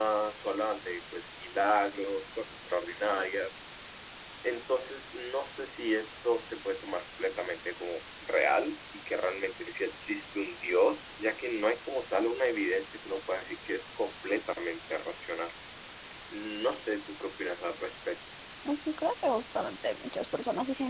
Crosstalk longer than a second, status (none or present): none